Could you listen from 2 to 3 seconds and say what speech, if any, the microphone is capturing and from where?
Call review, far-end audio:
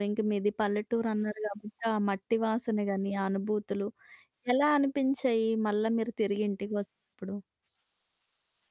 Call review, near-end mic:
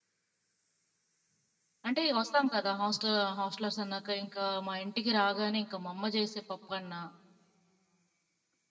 user only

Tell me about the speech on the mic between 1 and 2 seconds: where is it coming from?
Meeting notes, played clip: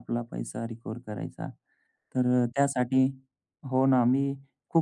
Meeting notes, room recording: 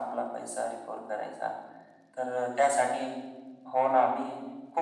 echo only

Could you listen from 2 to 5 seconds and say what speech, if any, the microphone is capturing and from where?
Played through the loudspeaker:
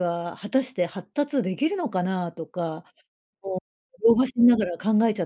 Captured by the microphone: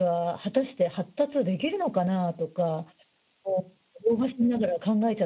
echo only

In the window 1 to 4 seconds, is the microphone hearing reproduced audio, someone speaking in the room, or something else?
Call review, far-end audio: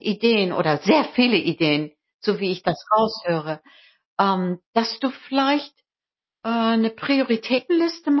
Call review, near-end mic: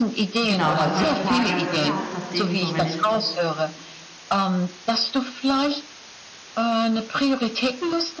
both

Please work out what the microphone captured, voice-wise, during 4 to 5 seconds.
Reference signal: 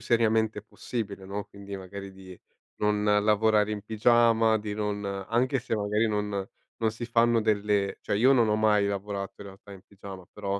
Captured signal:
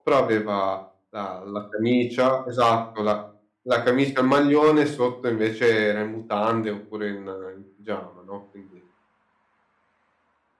user only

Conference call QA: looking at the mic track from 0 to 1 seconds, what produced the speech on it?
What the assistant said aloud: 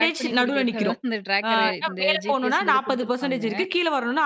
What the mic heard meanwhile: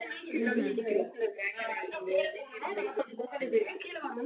both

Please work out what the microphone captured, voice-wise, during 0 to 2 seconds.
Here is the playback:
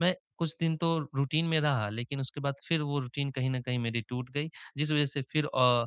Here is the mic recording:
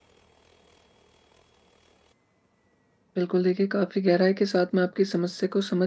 neither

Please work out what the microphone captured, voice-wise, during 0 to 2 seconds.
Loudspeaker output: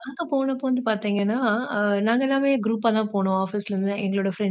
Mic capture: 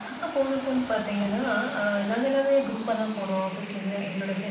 echo only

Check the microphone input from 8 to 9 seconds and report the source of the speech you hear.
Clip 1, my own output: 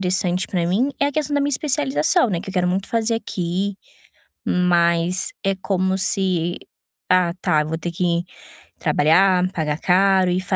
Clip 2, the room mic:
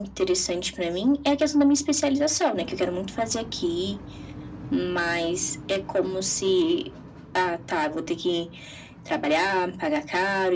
echo only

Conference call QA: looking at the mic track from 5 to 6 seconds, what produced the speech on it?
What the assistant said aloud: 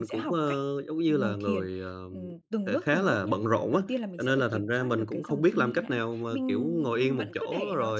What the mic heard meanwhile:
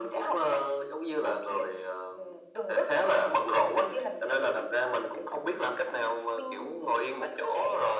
echo only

